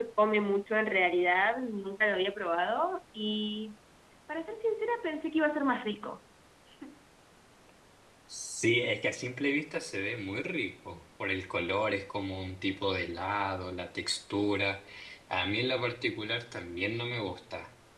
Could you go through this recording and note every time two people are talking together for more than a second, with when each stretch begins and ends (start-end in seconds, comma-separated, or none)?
none